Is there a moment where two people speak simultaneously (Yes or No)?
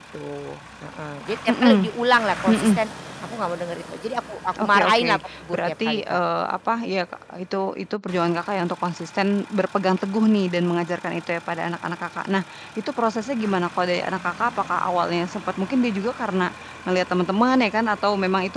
Yes